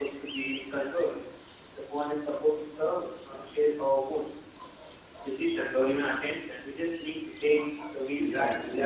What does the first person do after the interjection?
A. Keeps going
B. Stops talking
B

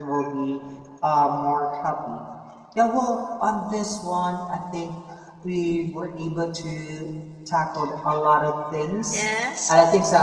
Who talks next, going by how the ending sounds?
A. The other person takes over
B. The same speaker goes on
B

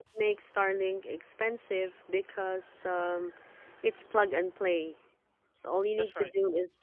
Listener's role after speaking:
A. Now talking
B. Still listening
B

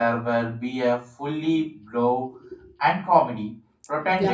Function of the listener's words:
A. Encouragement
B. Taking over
B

